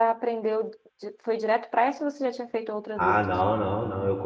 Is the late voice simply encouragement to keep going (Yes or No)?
No